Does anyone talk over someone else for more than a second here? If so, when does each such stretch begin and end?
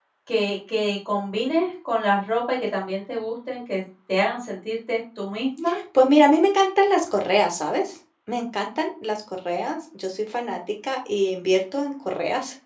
none

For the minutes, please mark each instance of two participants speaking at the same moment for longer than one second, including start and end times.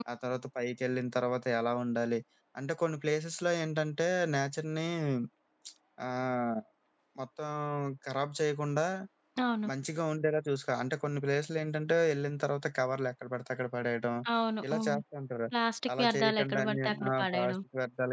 16.0-17.6

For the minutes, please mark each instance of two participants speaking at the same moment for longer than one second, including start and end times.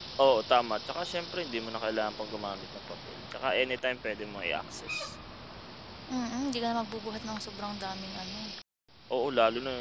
none

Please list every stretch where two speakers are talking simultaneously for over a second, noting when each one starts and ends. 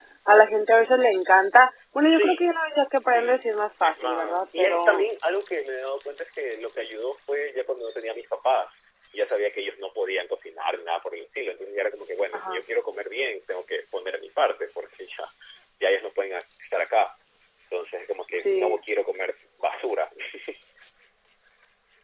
3.8-5.0

